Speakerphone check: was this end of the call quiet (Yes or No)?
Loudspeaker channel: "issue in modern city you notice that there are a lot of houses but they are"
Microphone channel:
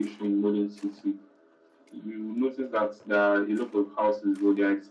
Yes